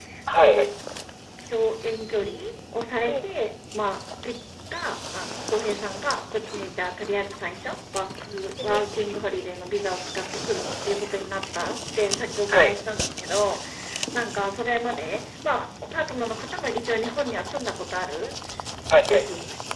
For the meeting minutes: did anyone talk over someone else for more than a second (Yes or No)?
No